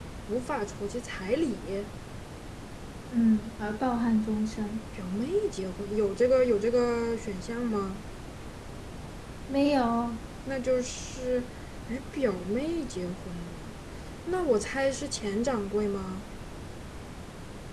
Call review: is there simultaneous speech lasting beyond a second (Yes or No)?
No